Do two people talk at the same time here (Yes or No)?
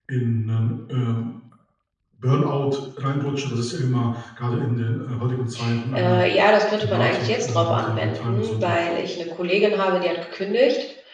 Yes